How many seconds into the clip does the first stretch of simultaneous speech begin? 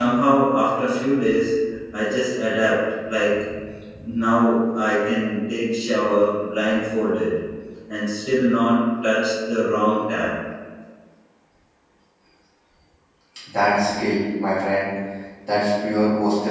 none

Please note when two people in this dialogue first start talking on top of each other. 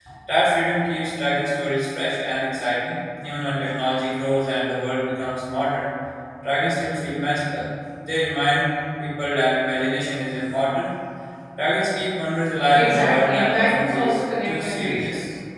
12.7 s

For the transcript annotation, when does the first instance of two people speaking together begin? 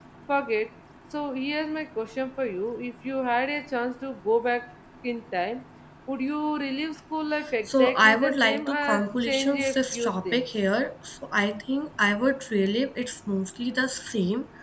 7.7 s

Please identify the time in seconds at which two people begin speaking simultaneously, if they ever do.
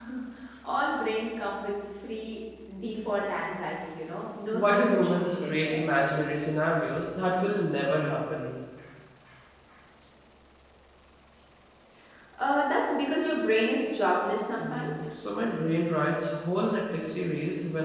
4.5 s

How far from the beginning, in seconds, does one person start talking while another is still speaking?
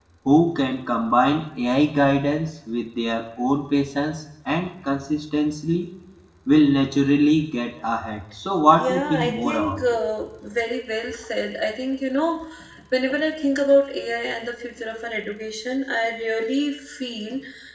8.8 s

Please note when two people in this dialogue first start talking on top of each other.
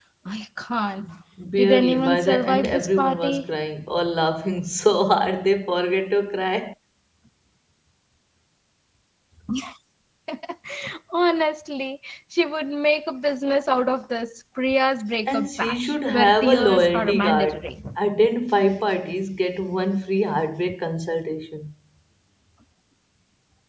1.5 s

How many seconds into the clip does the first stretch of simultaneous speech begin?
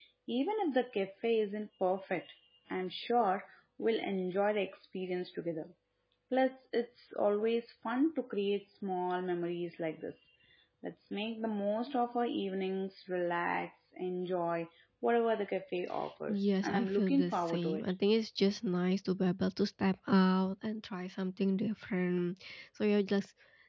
16.3 s

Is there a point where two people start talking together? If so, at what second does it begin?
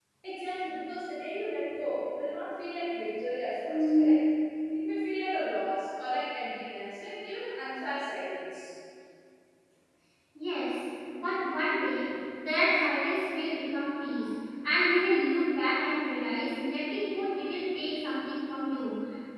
none

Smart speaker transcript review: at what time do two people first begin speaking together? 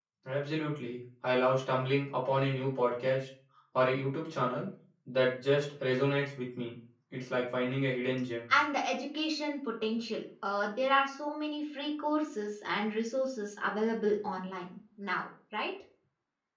none

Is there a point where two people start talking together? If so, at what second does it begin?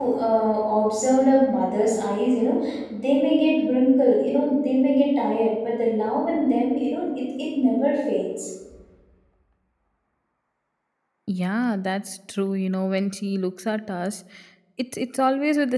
none

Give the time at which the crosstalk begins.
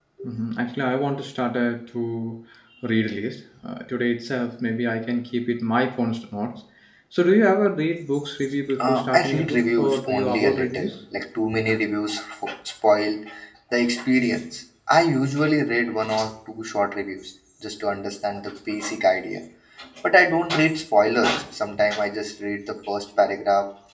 8.8 s

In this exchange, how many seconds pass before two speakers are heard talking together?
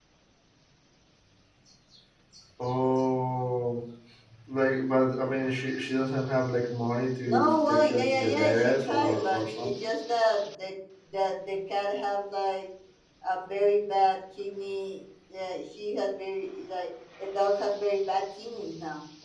7.2 s

